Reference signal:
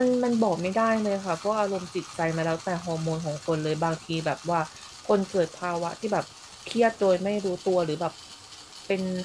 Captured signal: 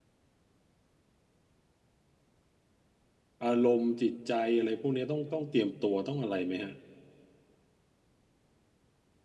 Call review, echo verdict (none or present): none